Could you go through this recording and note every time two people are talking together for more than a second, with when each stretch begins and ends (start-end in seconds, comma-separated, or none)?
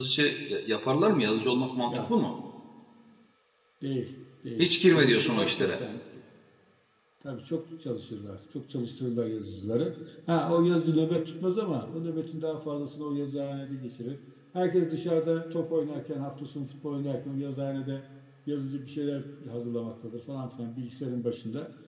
4.6-5.8